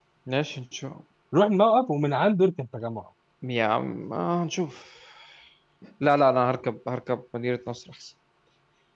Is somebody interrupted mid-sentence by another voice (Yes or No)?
No